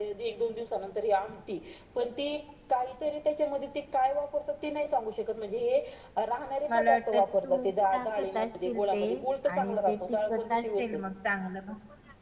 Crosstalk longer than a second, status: present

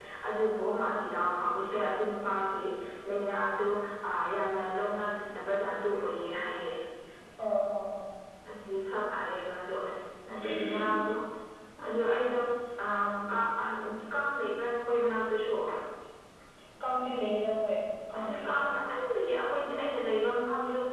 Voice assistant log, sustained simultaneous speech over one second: none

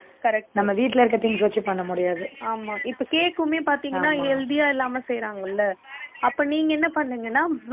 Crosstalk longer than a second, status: none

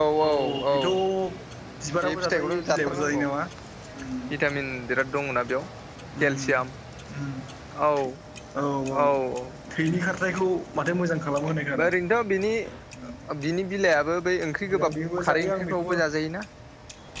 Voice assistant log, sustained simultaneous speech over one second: present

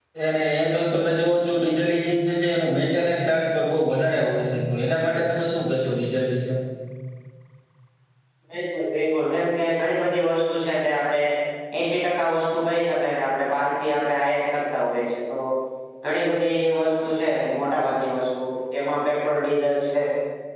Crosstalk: none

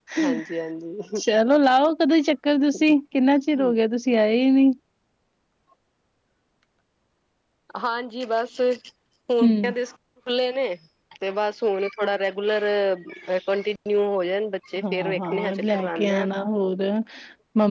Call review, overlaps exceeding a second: present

